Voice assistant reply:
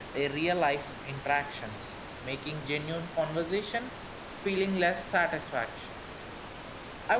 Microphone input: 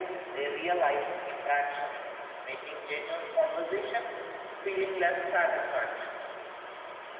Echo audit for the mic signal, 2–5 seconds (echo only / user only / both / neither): echo only